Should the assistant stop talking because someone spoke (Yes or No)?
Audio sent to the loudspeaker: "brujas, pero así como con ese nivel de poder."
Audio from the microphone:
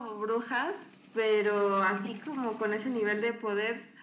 No